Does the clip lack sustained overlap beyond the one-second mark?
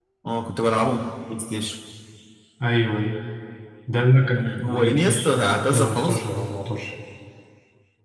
No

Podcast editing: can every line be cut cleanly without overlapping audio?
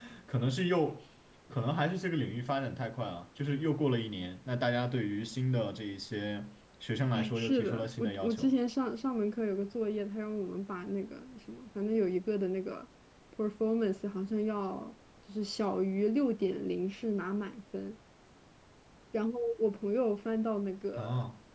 No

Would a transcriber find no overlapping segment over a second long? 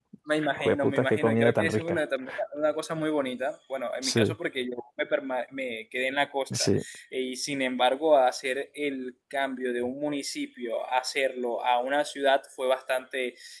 No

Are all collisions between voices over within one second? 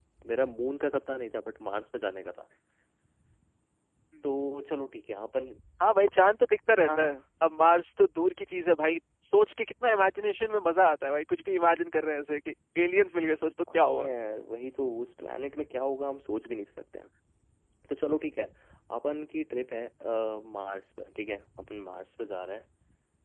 Yes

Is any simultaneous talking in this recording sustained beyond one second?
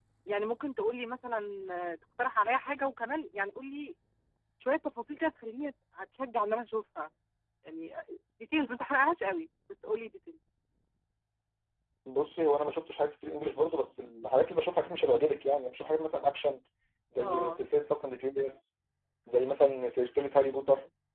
No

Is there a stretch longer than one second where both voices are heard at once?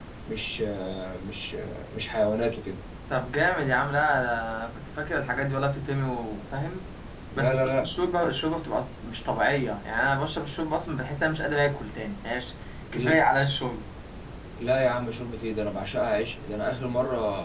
No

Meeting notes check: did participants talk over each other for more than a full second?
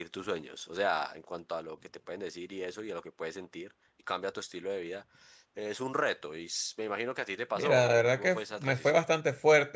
Yes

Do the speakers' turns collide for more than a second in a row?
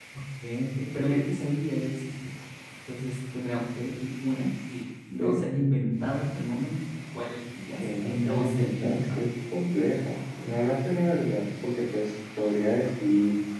Yes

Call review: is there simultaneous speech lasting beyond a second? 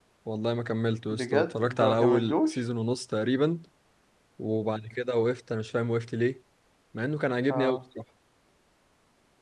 Yes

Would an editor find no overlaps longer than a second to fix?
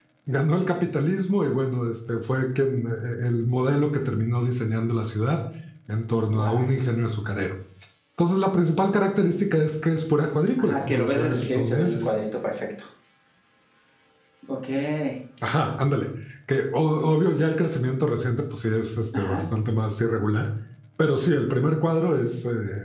No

